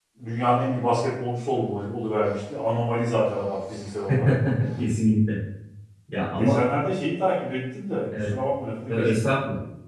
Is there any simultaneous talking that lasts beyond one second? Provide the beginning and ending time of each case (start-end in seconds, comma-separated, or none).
none